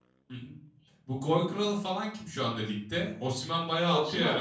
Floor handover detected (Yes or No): Yes